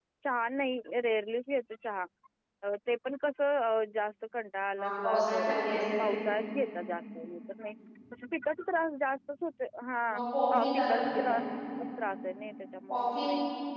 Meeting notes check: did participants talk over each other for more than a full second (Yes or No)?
Yes